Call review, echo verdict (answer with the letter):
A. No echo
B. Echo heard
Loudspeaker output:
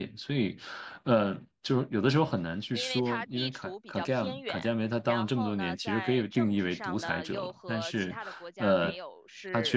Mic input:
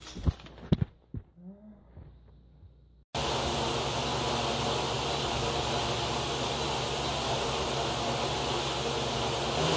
A